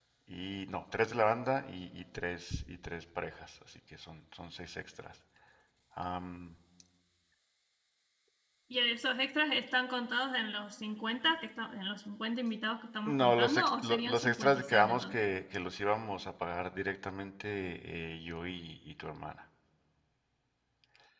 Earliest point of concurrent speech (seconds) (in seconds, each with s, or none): 13.1 s